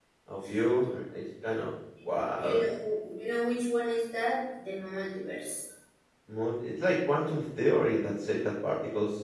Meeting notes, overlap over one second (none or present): none